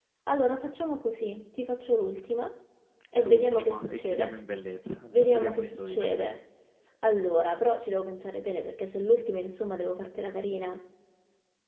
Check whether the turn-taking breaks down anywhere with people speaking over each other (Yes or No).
Yes